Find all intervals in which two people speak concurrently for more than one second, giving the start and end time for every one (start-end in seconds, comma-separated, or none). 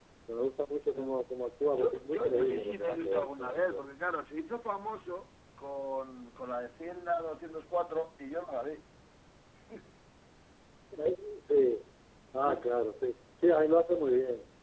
1.8-3.9